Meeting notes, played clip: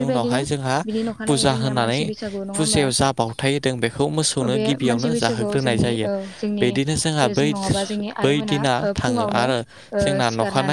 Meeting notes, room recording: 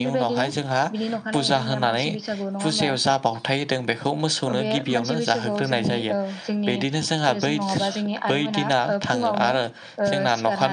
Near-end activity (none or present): none